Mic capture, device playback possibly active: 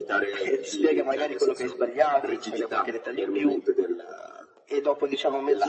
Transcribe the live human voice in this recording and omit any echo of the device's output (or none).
none